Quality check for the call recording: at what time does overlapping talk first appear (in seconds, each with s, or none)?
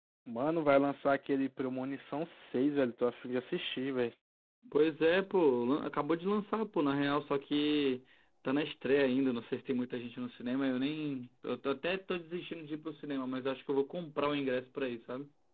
none